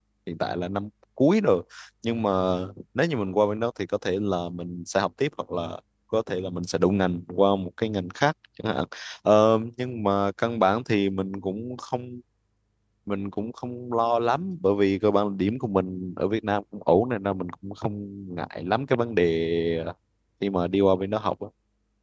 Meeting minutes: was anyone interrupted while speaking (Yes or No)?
No